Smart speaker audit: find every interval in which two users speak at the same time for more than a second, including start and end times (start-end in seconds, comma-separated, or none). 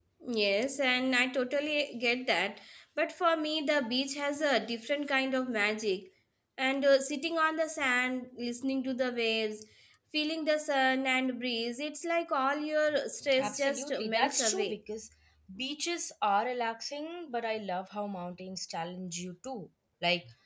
13.4-14.8